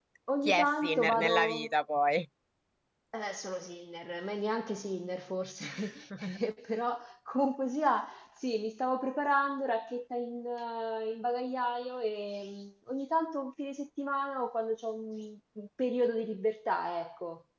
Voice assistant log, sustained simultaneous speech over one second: present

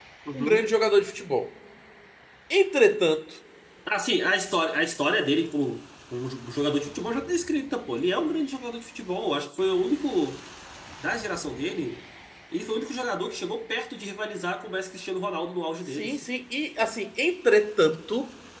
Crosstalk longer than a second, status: none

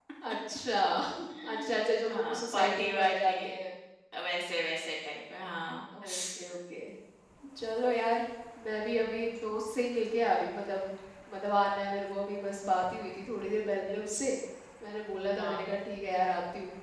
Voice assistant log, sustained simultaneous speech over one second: present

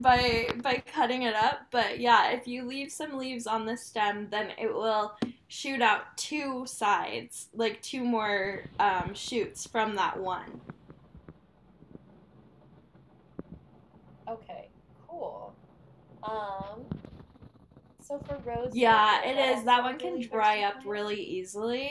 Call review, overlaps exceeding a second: present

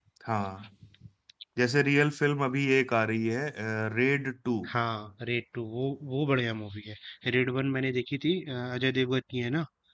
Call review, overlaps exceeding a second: none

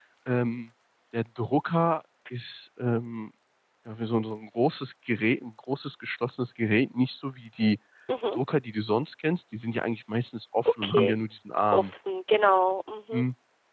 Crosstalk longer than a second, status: none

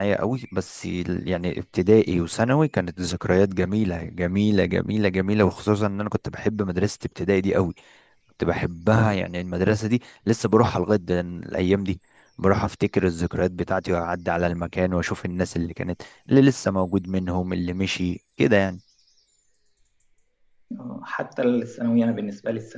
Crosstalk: none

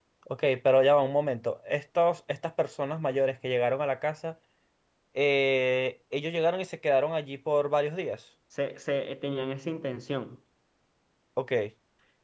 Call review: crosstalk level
none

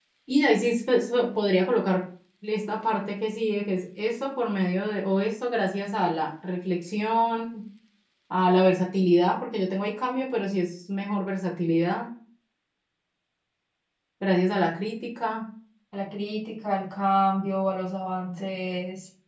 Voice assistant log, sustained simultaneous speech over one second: none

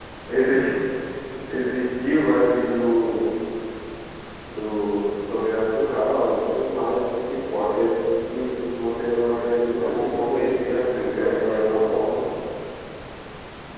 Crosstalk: present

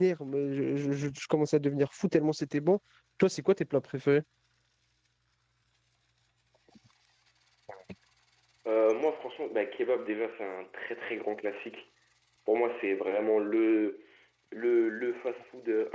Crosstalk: none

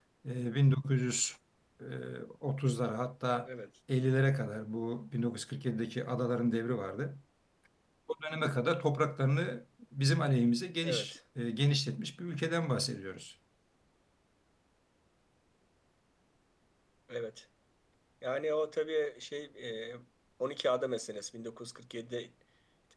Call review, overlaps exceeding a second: none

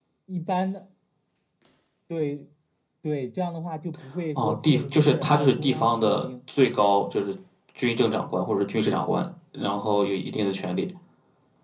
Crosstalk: present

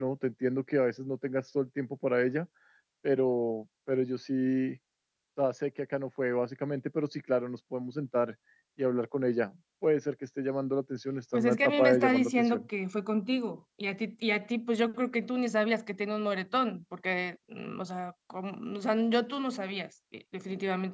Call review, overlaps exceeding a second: present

